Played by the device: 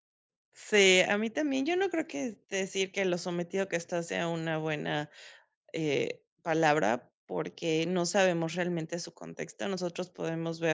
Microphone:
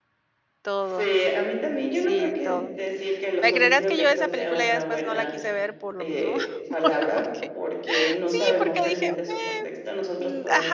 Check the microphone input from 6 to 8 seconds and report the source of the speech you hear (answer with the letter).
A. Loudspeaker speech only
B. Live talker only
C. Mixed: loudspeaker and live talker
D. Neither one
C